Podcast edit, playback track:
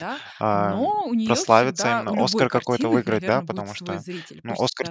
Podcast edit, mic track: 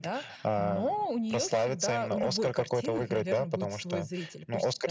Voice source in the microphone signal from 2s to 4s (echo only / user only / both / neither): echo only